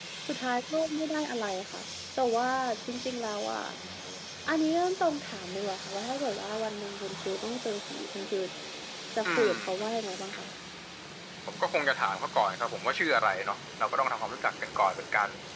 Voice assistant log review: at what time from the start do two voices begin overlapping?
9 s

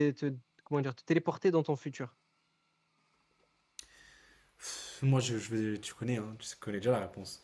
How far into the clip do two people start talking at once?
none

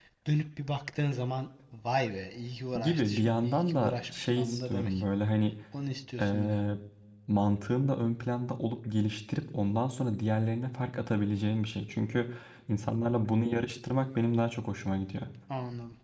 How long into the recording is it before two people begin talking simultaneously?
3 s

